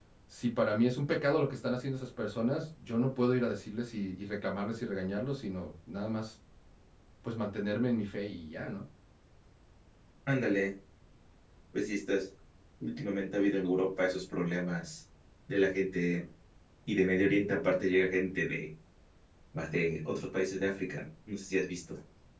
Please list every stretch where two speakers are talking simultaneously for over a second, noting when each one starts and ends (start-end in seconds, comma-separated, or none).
none